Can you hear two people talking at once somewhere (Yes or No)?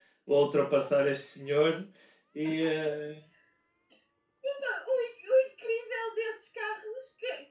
No